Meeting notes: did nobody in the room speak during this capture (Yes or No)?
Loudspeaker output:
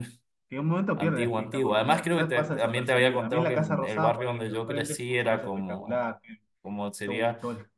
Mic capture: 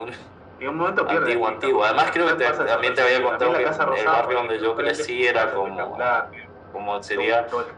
Yes